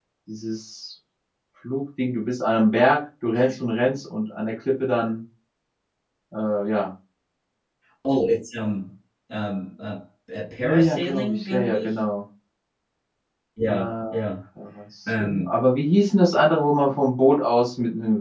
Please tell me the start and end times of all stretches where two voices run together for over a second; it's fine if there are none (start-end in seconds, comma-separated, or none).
10.6-11.9